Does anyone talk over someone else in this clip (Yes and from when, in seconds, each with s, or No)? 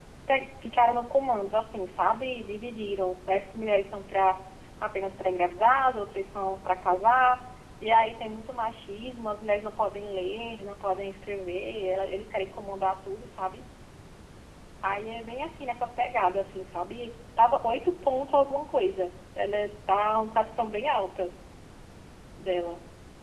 No